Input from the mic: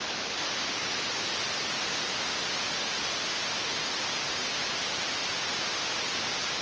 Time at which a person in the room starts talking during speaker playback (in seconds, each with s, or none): none